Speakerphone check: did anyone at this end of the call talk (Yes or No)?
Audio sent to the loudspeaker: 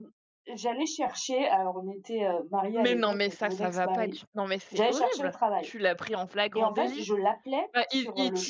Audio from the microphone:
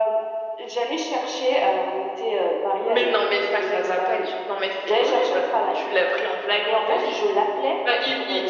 No